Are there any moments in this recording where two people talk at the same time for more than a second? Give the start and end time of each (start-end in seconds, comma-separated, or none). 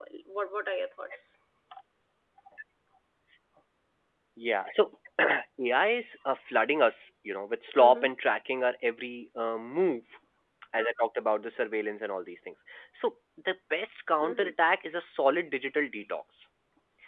none